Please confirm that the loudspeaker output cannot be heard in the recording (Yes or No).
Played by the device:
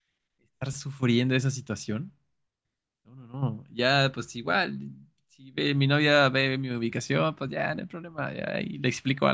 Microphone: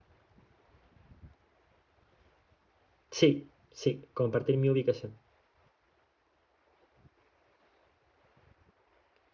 Yes